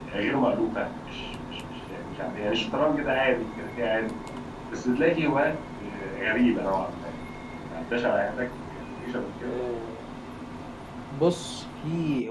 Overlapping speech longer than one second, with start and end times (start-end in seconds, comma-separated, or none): none